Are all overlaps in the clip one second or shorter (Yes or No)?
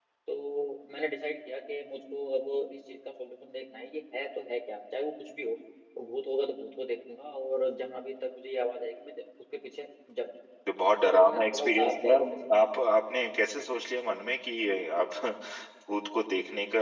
No